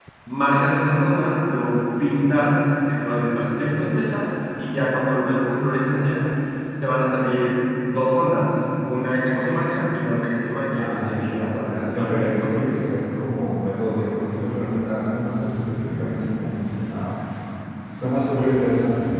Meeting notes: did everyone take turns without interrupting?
No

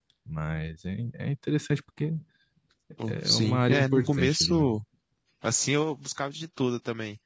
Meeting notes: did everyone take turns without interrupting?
No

